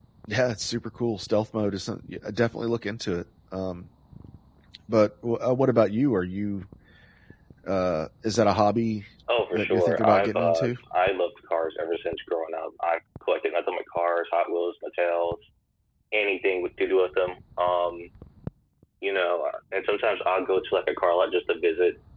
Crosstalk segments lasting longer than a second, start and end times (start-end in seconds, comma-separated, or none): 9.5-10.8